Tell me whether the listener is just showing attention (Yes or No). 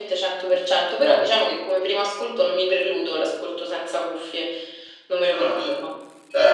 No